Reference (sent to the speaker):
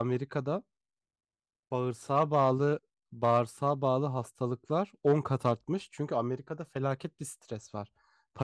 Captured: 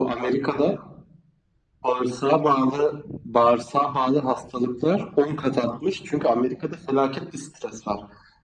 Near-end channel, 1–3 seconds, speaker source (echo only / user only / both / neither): echo only